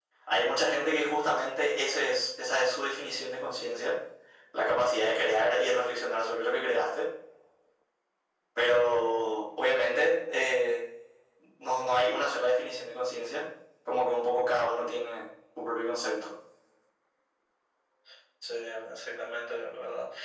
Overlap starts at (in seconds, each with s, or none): none